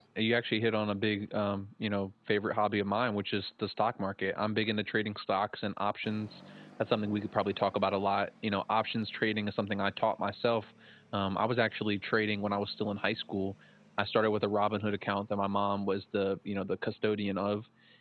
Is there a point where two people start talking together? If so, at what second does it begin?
none

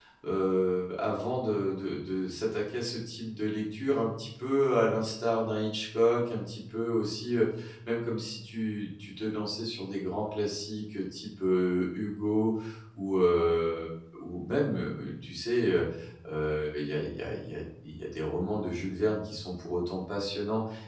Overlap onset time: none

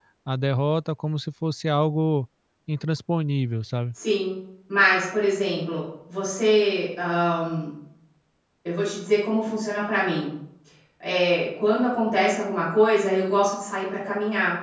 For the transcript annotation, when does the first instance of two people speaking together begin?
none

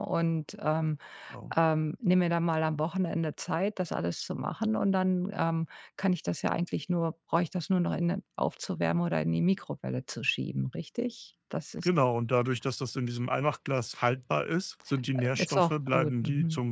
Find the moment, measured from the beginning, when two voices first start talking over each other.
15 s

